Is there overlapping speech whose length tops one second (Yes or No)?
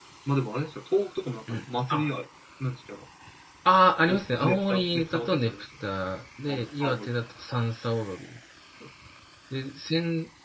Yes